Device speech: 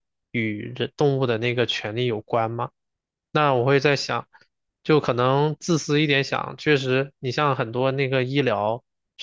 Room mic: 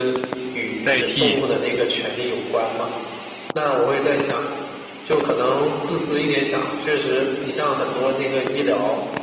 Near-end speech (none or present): present